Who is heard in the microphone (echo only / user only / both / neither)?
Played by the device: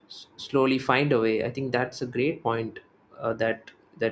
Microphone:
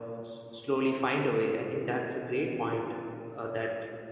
echo only